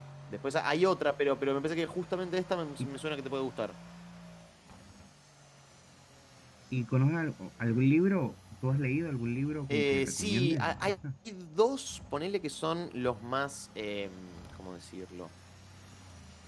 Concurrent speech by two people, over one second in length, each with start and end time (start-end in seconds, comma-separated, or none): 9.7-10.9